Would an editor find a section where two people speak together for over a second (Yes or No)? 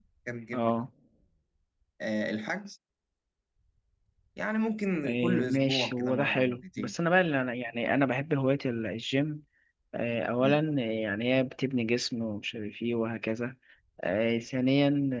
Yes